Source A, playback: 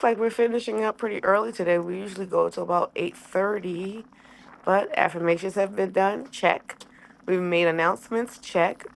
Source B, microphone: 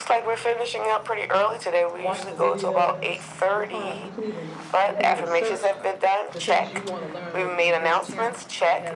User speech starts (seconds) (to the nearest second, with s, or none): 2 s